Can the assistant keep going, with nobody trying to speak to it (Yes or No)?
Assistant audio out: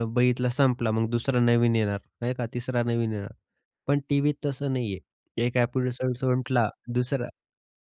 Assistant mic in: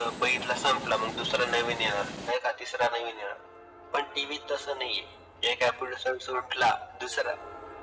Yes